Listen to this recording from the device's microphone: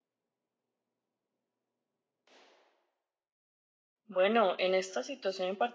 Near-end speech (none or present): present